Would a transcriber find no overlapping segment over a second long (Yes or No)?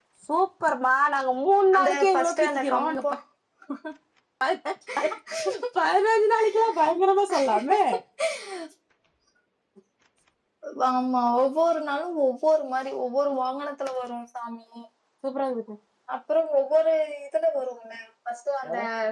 No